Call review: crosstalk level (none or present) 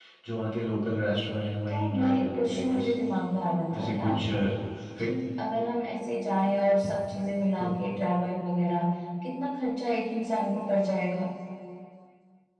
present